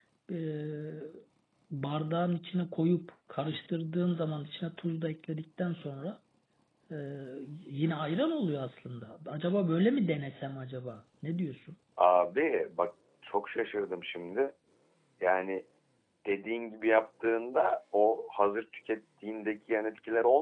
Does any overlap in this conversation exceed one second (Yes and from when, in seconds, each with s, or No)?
No